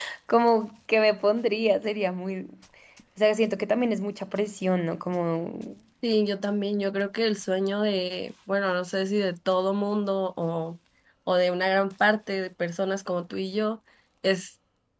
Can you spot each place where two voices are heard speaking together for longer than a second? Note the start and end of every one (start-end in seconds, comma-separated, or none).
none